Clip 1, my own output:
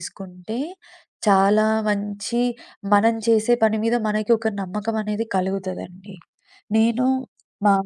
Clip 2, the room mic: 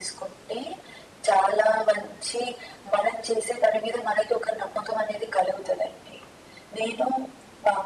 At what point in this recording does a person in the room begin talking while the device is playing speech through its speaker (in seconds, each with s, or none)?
none